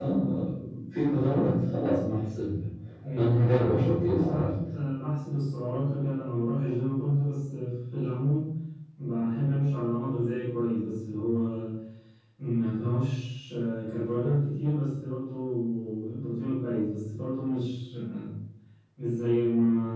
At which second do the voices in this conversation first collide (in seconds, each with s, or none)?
3.1 s